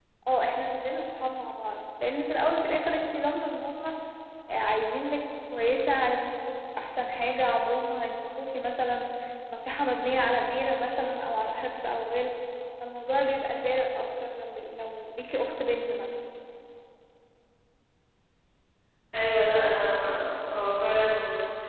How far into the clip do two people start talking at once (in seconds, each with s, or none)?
none